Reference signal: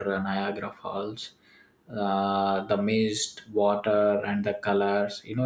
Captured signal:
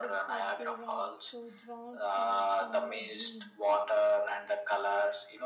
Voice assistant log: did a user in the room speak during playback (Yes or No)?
Yes